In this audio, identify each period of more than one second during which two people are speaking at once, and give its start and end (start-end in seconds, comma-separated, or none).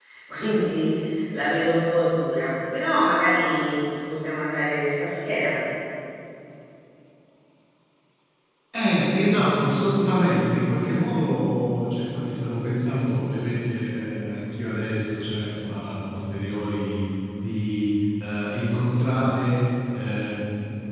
none